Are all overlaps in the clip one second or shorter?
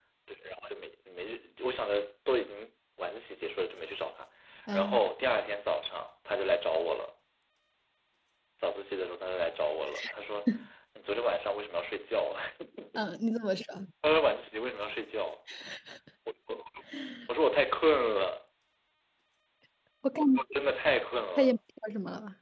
Yes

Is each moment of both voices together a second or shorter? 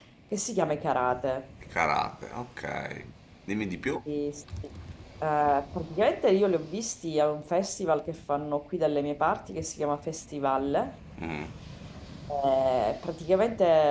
Yes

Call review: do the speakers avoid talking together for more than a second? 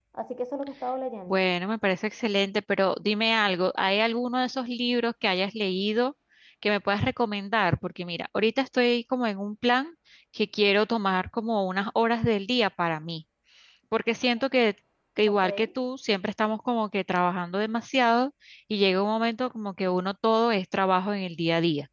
Yes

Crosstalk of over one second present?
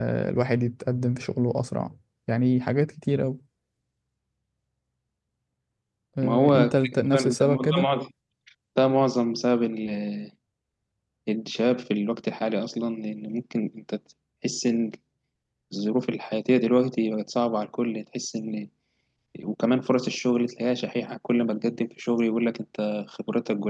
Yes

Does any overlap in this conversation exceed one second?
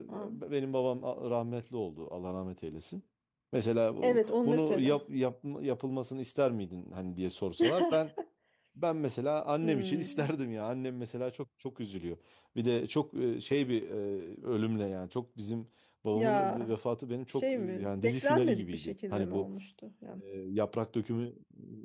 Yes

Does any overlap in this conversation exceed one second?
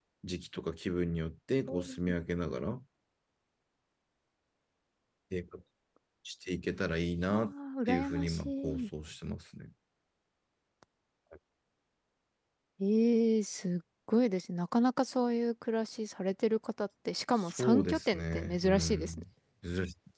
Yes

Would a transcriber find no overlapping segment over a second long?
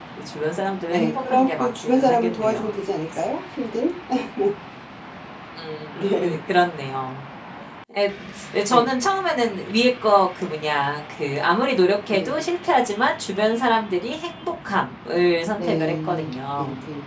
No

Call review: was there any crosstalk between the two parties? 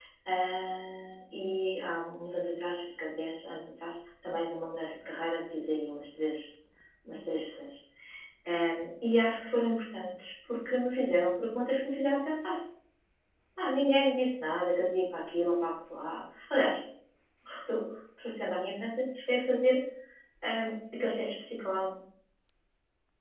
No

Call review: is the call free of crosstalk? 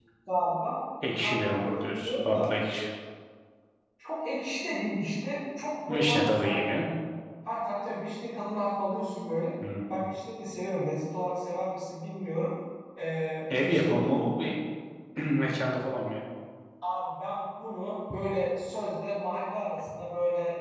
No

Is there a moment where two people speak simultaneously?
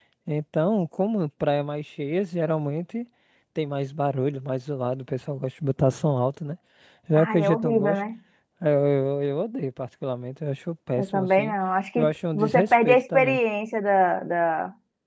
Yes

